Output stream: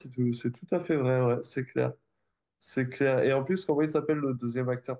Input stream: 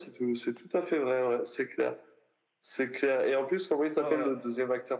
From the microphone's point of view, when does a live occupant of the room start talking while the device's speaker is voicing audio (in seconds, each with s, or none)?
4.0 s